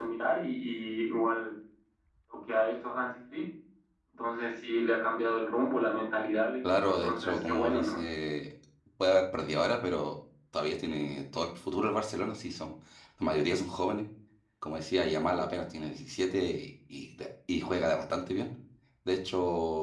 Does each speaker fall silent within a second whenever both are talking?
No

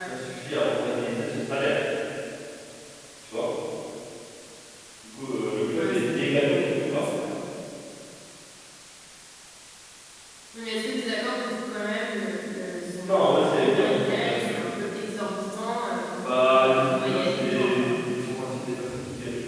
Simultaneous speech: Yes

